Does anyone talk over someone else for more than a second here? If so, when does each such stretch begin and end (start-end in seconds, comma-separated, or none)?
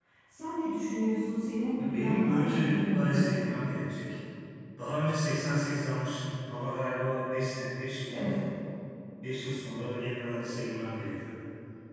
1.8-3.3